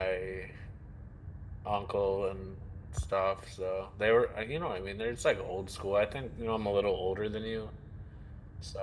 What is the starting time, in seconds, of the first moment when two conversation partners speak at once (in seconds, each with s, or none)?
none